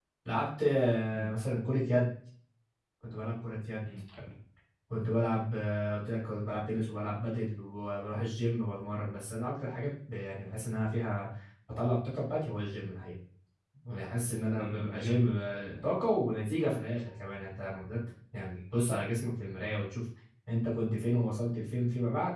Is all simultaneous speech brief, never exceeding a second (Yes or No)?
No